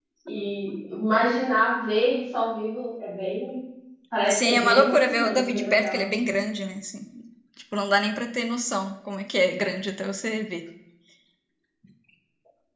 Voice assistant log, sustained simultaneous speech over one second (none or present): present